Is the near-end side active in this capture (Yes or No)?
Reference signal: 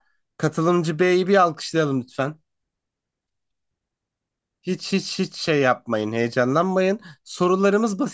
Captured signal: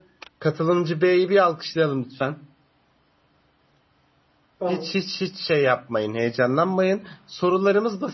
Yes